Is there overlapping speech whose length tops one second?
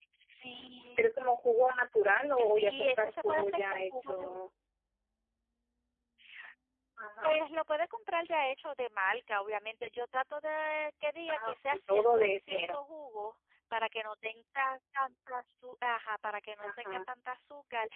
Yes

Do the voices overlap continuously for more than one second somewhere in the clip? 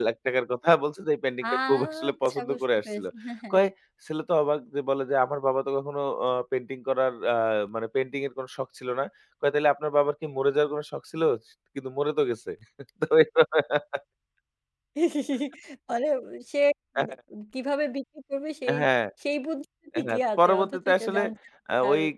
Yes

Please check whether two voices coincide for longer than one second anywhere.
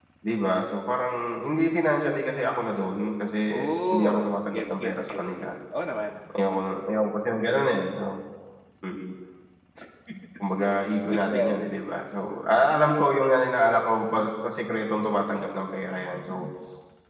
Yes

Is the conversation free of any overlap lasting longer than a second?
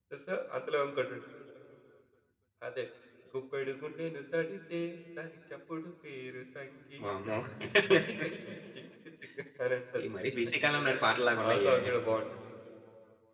Yes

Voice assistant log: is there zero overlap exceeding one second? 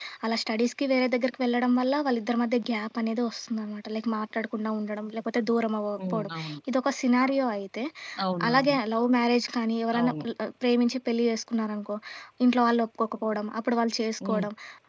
Yes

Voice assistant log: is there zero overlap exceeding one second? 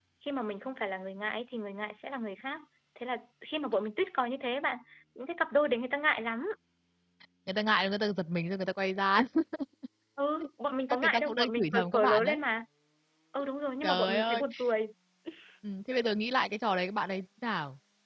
No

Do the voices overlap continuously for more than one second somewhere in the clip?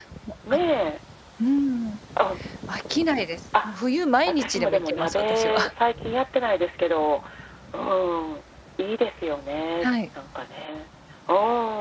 Yes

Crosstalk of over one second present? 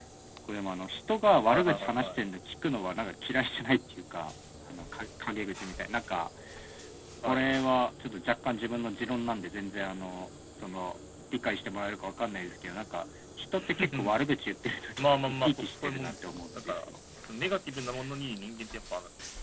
Yes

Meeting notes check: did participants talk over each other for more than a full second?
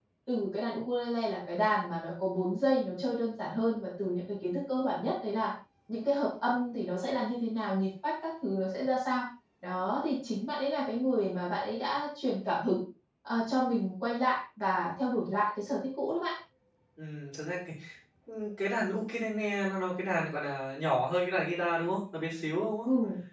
No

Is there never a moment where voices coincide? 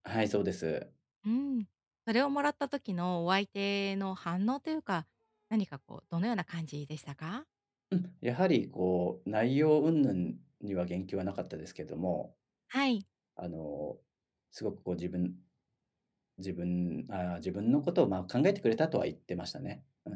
Yes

